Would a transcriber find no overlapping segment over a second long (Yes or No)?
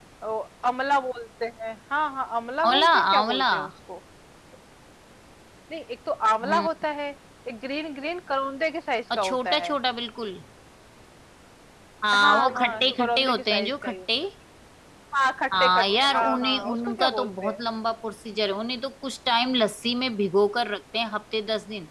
No